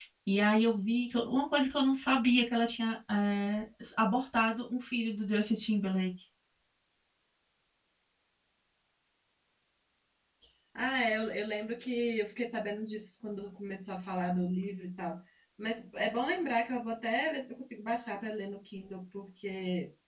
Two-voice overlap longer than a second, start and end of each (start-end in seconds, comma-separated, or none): none